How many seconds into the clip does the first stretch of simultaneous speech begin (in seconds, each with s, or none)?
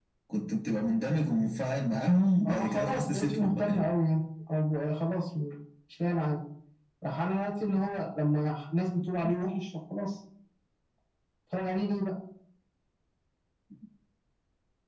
2.4 s